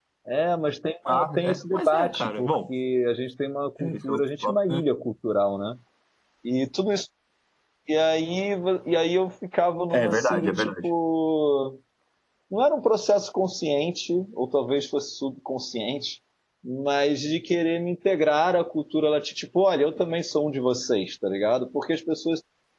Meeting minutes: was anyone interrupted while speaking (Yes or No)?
Yes